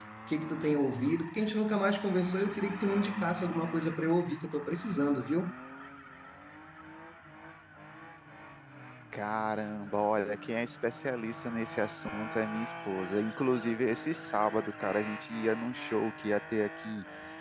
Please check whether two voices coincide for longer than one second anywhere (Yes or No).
No